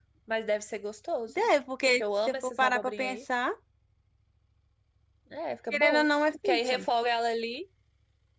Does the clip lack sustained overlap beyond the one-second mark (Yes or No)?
No